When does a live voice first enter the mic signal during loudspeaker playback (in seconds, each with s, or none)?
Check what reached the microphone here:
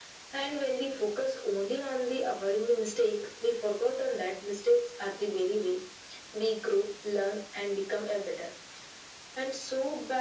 none